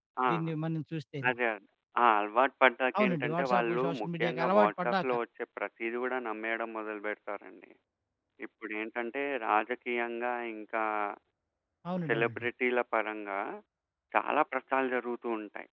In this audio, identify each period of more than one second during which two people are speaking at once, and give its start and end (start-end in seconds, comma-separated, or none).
3.0-5.0